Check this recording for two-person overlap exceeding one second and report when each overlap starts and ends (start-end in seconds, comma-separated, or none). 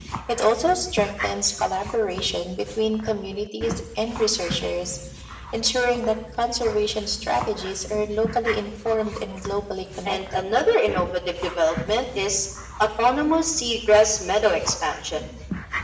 none